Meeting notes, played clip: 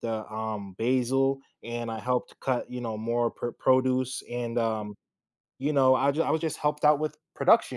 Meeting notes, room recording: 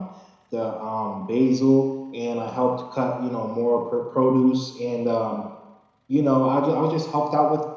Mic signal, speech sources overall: echo only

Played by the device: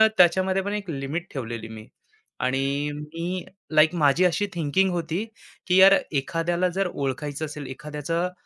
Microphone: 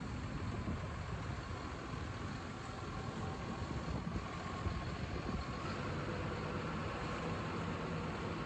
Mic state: neither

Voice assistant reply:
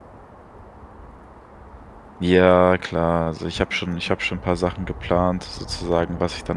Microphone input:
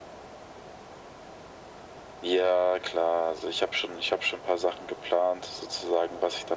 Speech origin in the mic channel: echo only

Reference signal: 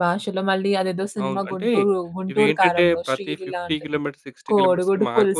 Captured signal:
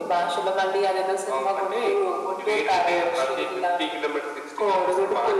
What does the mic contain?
echo only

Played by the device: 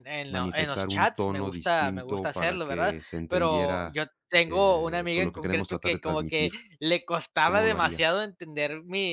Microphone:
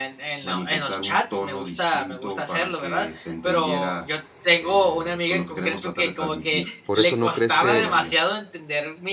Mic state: both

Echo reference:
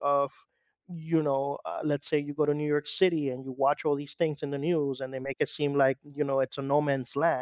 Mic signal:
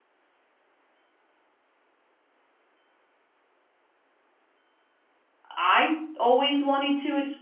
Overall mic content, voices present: user only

